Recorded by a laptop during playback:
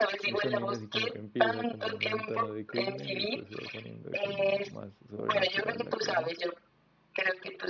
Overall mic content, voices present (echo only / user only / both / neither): both